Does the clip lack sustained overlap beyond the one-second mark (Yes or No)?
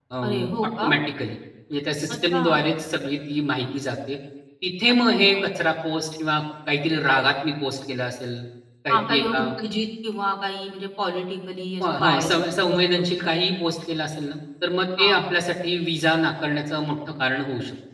No